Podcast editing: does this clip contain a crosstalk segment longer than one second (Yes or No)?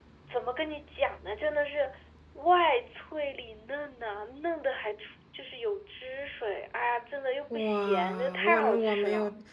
Yes